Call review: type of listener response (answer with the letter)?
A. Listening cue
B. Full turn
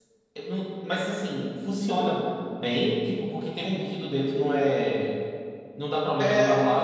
B